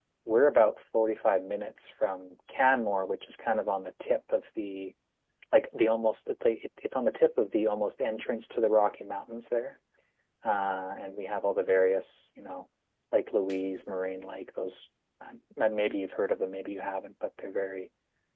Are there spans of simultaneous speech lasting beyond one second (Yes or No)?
No